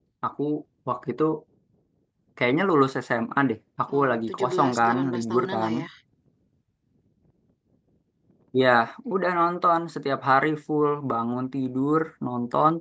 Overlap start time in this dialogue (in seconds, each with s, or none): 3.9 s